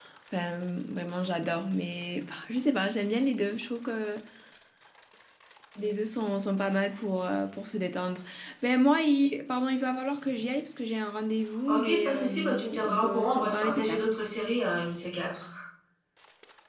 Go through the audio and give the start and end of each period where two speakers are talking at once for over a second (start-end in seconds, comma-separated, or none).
11.7-14.1